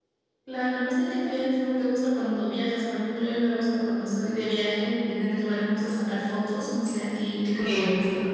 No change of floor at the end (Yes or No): No